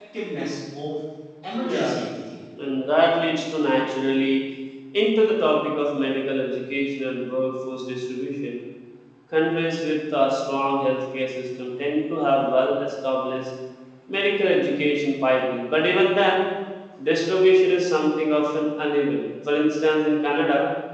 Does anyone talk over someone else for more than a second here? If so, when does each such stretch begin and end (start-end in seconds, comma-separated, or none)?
none